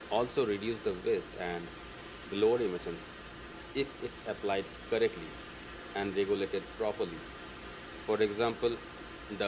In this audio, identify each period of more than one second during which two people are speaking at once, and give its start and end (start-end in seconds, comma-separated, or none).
none